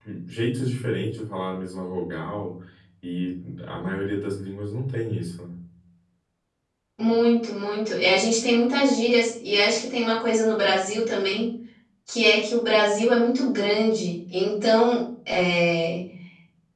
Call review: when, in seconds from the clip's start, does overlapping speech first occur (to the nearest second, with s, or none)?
none